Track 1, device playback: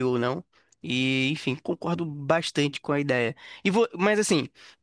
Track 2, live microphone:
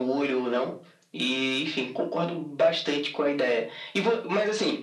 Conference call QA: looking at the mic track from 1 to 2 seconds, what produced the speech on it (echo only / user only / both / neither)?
echo only